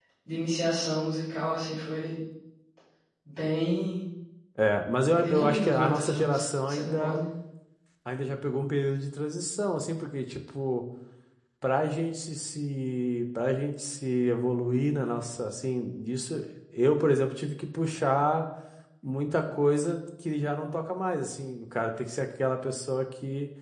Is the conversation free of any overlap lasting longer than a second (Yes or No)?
No